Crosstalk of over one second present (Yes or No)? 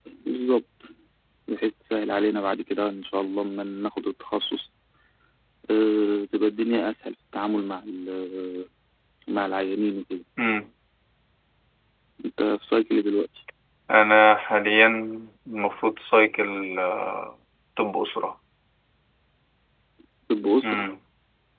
No